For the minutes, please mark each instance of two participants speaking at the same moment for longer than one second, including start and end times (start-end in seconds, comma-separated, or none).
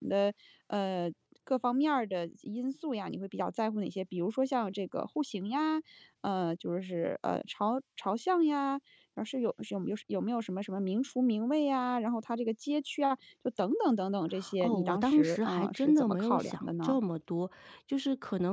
14.6-17.0